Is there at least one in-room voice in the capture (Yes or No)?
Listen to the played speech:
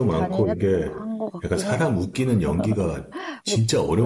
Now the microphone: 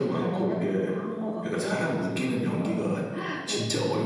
No